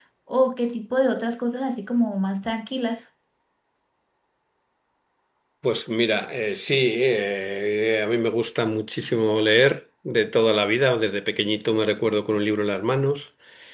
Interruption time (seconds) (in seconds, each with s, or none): none